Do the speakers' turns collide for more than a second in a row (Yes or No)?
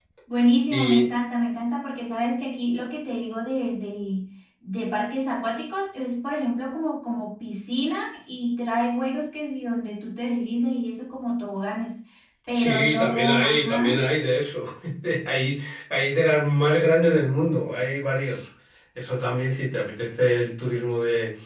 Yes